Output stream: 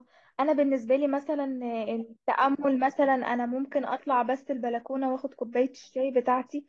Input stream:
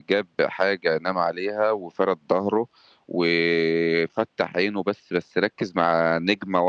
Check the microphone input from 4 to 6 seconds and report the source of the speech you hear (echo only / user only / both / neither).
user only